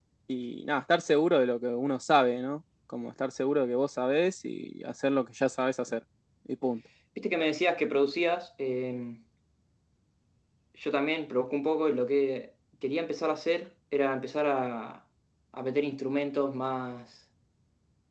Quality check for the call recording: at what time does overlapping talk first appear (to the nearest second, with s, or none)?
none